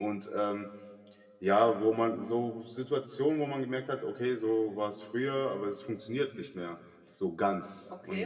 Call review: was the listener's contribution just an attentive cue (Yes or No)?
No